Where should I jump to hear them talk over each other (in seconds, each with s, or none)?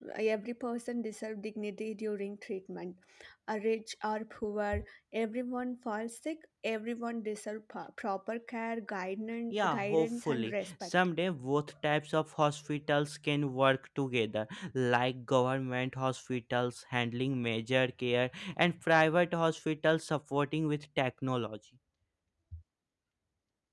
9.5 s